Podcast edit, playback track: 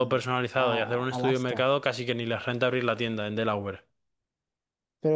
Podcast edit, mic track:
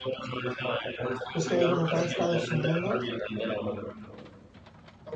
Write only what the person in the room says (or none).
Es que ahí como cada estado es su mundo,